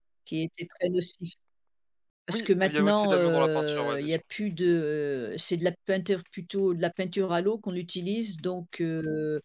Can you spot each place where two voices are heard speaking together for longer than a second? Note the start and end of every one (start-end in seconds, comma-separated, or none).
2.3-4.2